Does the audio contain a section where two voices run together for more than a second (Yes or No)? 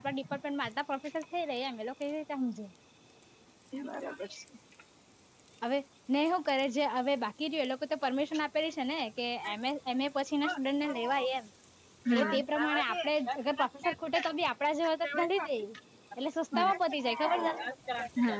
Yes